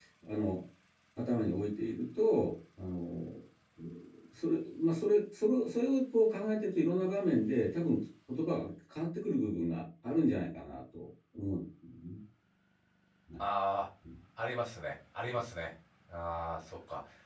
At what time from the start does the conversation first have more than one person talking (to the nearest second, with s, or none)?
none